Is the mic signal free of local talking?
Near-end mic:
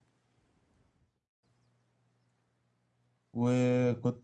No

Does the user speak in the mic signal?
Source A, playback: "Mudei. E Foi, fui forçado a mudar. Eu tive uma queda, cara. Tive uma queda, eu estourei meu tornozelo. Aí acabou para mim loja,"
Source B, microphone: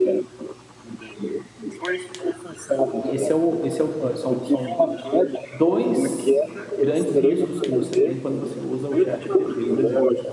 Yes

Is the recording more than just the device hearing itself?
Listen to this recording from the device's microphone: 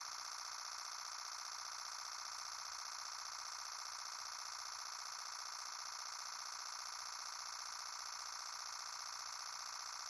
No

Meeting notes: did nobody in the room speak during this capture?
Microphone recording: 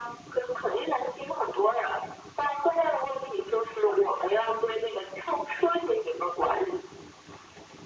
Yes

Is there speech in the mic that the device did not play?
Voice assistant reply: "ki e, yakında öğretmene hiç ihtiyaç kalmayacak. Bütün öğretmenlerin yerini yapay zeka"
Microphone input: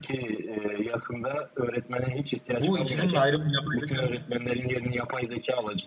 Yes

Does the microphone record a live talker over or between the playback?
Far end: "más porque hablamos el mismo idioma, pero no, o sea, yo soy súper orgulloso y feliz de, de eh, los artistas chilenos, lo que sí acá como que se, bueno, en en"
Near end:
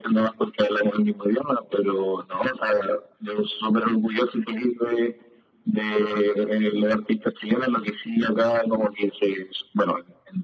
No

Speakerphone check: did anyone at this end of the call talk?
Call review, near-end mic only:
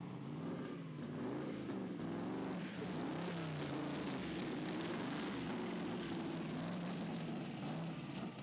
No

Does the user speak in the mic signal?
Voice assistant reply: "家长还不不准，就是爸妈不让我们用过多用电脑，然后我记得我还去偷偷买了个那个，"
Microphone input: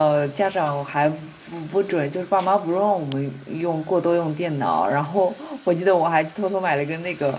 No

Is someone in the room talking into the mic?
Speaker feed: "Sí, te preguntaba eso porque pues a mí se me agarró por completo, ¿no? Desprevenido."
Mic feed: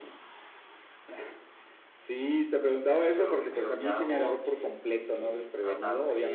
Yes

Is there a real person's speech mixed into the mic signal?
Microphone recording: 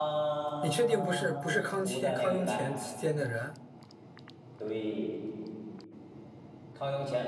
Yes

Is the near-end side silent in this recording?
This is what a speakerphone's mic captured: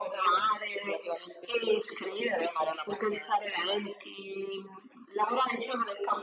Yes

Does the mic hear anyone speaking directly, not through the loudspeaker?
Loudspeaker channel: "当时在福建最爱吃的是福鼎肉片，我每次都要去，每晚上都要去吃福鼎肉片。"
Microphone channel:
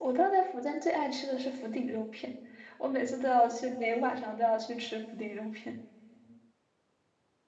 No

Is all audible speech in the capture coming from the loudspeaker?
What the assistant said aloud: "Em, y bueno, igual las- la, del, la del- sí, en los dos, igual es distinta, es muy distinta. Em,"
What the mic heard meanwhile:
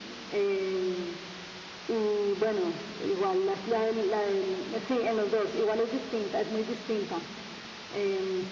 Yes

